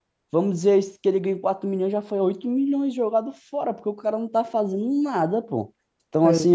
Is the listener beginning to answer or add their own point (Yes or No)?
No